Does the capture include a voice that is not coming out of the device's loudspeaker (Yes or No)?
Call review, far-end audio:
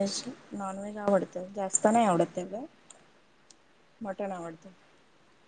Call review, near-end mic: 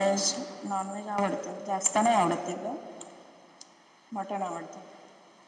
No